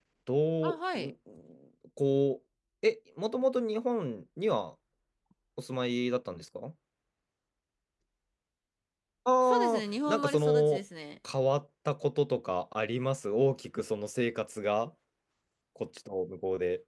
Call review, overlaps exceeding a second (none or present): present